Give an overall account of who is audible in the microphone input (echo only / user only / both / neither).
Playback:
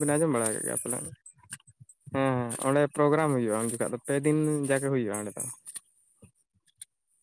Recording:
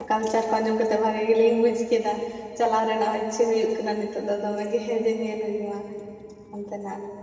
user only